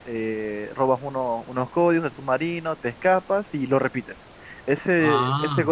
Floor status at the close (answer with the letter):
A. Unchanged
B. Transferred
A